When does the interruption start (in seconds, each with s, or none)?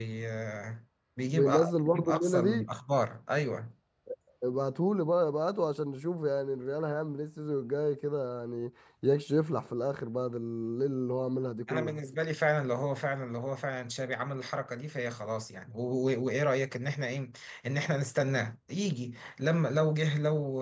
1.3 s